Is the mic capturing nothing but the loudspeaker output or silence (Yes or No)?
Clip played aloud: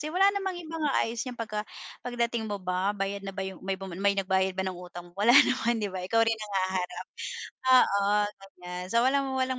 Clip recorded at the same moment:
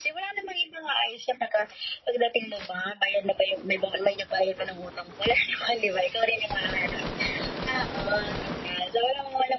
Yes